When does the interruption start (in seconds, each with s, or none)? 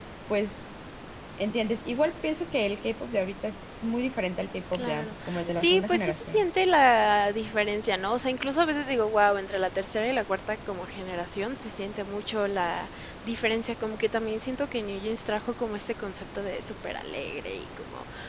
4.7 s